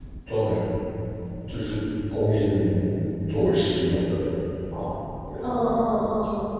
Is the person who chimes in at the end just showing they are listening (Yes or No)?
No